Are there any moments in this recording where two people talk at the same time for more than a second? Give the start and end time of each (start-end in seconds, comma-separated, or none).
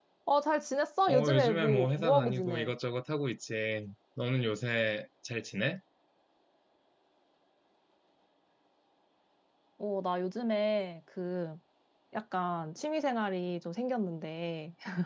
1.1-2.7